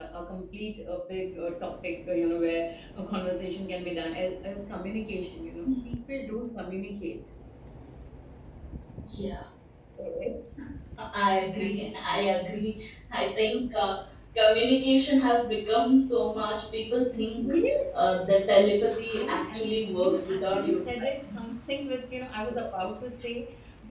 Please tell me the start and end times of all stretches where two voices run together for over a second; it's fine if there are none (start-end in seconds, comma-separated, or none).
18.5-20.8